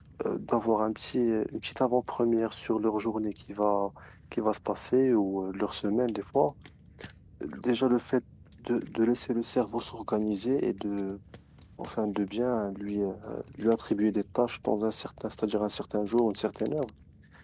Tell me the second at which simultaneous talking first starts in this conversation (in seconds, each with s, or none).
none